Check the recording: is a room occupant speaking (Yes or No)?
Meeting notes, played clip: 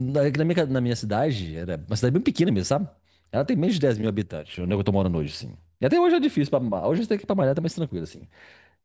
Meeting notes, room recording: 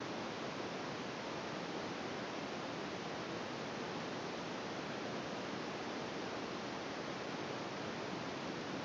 No